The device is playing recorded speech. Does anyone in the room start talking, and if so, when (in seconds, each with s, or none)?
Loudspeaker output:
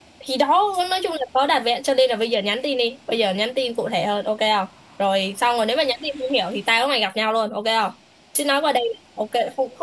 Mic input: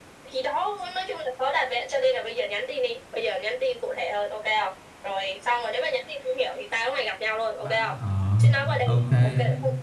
7.6 s